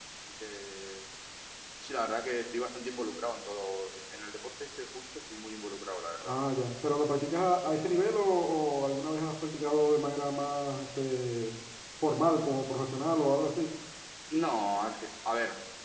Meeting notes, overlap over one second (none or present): none